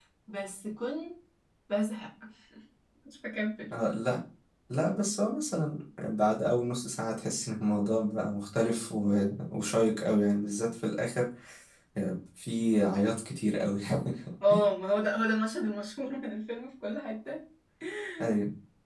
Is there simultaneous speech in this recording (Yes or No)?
No